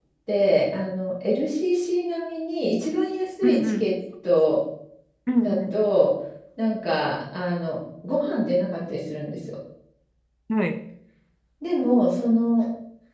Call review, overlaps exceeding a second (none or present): none